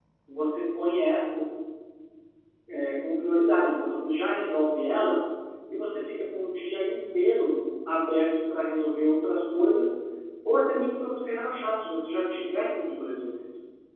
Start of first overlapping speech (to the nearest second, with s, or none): none